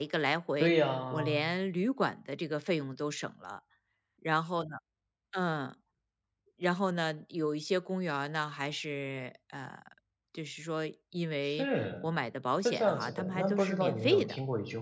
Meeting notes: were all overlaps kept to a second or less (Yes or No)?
No